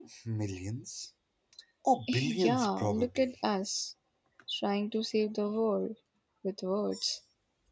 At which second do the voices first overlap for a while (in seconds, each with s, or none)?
2.1 s